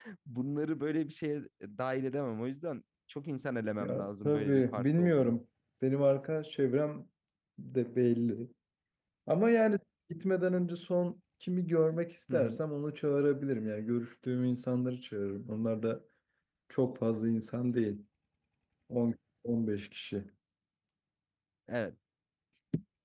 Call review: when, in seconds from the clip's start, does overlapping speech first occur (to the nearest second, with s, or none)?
4 s